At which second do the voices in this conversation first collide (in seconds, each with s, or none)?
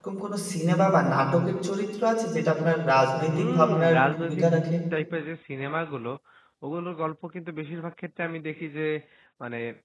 3.3 s